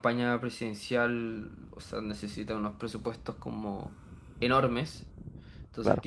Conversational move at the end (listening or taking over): listening